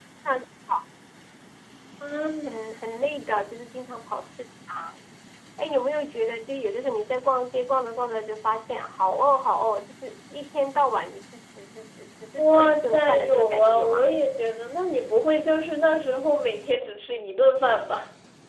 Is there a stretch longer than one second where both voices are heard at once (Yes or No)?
Yes